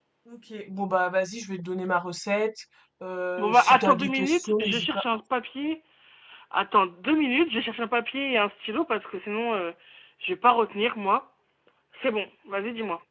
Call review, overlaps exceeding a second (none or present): present